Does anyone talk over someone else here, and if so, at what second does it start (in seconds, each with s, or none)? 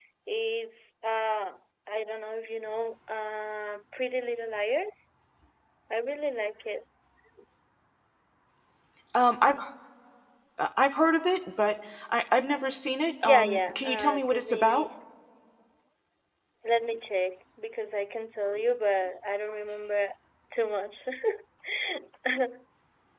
13.2 s